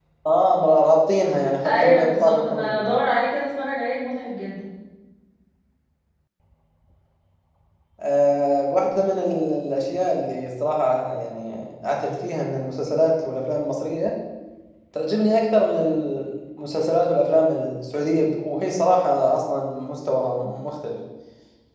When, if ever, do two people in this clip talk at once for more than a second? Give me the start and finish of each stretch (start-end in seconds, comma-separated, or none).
1.6-2.8